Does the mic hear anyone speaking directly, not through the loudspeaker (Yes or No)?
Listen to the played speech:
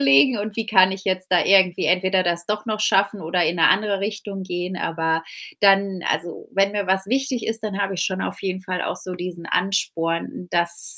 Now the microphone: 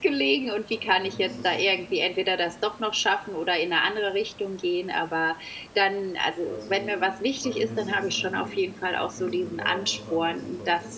Yes